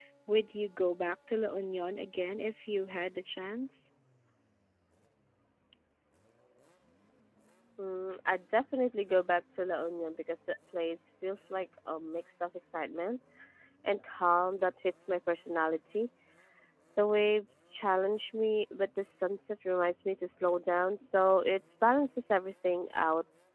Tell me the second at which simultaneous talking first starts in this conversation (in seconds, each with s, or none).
none